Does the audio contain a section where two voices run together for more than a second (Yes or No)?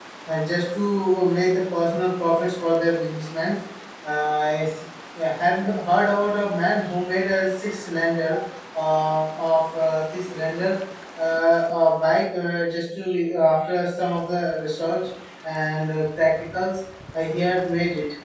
No